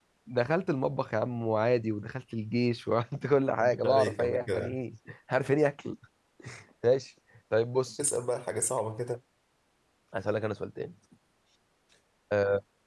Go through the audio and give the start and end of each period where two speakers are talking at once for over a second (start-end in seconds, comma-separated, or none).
3.6-4.8